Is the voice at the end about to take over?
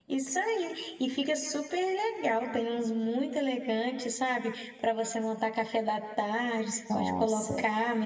No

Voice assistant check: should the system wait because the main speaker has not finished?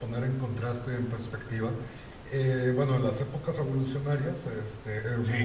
Yes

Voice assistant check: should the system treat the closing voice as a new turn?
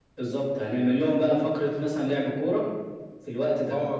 Yes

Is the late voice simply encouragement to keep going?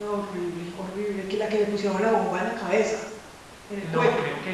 No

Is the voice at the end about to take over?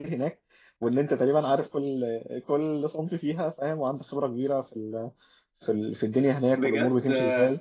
Yes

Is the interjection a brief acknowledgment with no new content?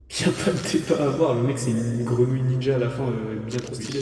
No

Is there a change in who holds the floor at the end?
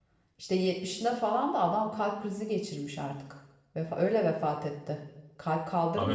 Yes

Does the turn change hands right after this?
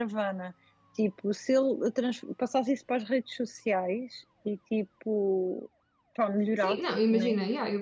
Yes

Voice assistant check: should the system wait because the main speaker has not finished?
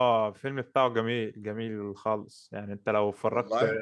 Yes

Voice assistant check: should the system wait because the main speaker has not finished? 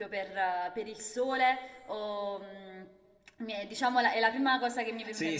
No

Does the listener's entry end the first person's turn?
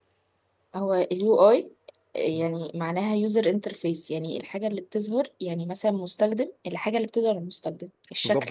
Yes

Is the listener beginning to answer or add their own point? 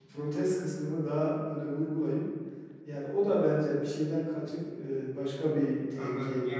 Yes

